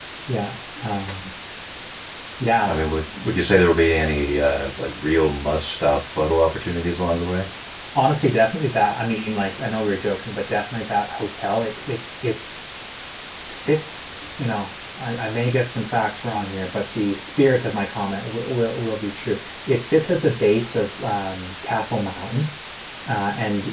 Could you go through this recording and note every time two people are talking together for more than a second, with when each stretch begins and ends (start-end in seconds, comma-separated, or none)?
none